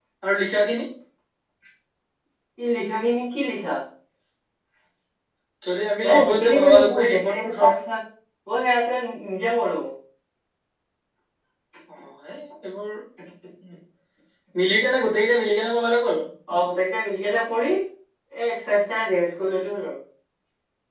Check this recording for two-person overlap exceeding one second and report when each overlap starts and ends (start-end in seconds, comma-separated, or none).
6.0-7.7